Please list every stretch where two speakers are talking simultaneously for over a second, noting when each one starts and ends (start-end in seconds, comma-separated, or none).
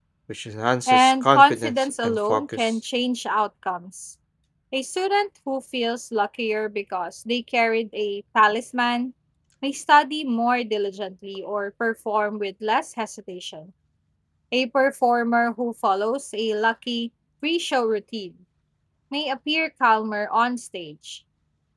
0.9-2.7